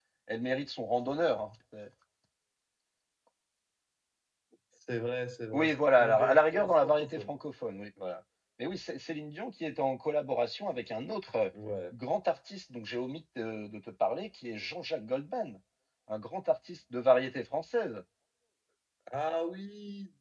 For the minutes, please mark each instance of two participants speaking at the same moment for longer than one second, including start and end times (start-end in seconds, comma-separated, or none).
5.5-7.3